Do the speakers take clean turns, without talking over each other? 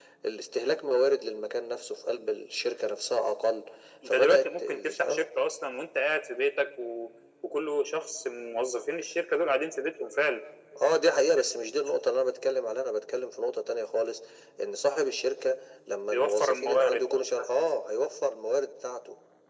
No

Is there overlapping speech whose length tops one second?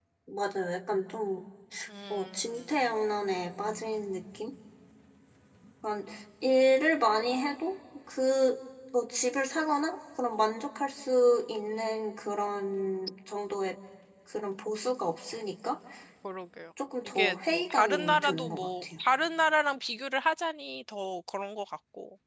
Yes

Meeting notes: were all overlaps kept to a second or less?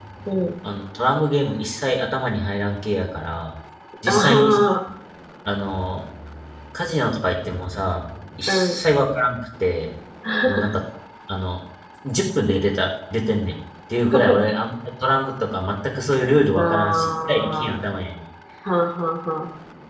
No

